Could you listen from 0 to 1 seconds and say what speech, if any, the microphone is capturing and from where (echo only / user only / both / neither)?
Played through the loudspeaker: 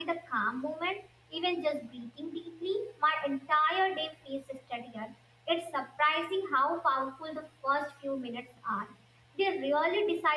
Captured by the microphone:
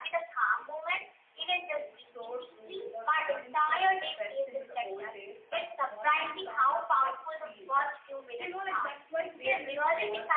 echo only